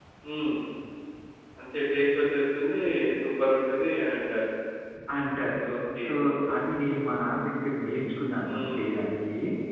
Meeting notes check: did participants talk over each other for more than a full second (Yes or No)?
No